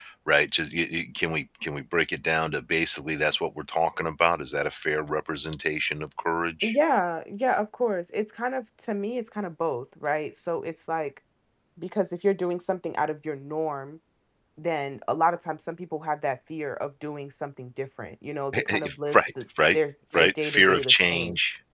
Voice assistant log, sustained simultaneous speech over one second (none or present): present